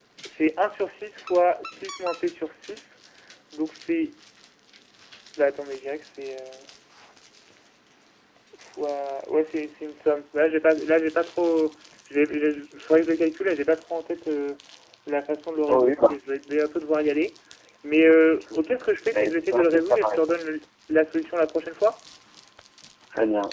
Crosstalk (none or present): present